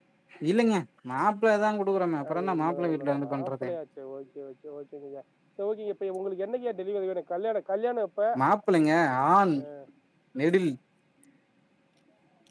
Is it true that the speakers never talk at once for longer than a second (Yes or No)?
No